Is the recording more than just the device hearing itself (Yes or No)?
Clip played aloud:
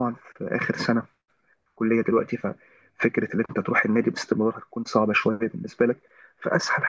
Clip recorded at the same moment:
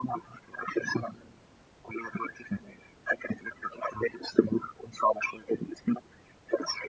No